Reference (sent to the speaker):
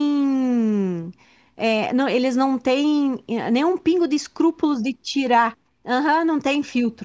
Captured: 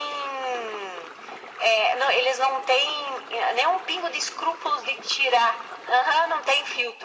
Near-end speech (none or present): none